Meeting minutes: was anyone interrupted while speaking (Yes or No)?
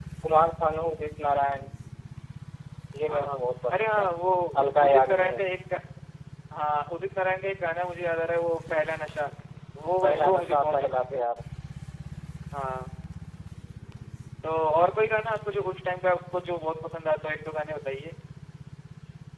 Yes